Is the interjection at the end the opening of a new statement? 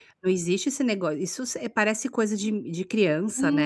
Yes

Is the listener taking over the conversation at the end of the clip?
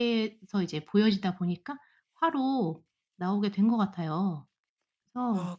Yes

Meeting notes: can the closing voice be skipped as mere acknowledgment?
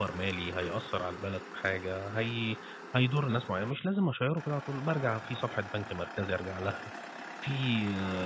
No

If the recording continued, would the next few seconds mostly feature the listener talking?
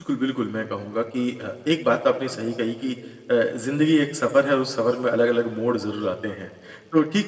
No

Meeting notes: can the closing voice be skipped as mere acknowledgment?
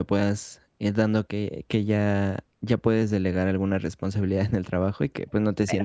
Yes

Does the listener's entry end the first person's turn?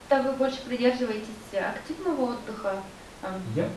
Yes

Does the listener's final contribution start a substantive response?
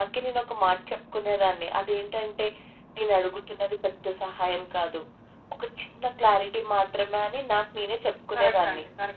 Yes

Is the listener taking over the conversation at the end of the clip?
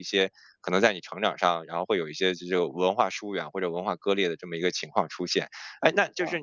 No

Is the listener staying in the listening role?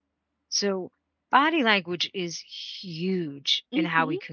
Yes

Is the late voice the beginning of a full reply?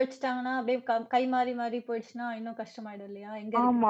Yes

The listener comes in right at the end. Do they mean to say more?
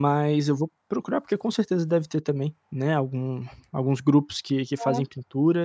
No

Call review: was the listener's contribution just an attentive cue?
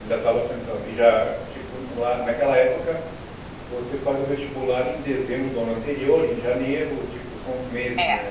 No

